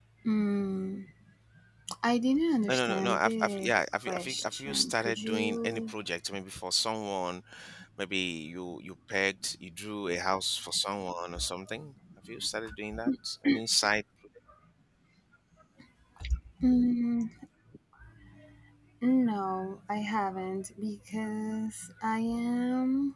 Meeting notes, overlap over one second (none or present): present